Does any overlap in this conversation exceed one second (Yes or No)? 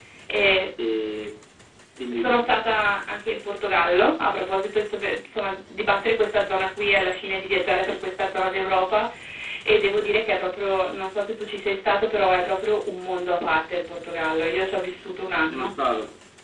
No